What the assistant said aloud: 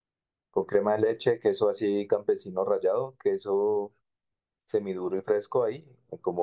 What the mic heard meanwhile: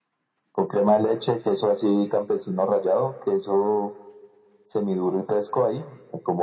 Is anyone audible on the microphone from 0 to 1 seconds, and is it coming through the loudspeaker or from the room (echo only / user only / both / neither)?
echo only